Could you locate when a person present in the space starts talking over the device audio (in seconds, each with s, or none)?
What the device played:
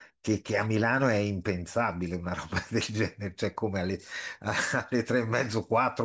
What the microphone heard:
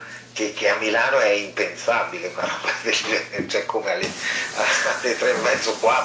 none